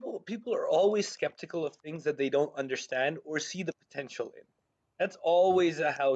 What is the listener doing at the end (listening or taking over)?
listening